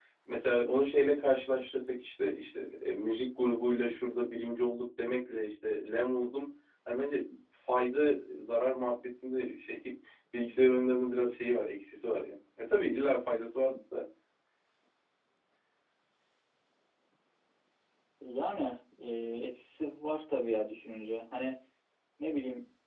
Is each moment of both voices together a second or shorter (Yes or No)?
Yes